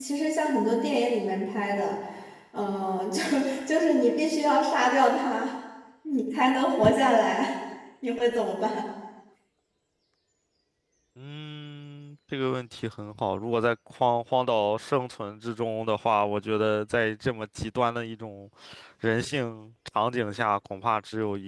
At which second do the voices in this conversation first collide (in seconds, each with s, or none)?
none